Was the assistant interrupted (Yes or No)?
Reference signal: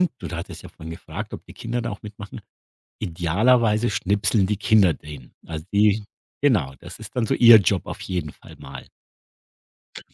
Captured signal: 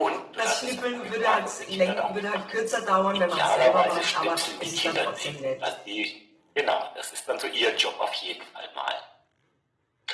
Yes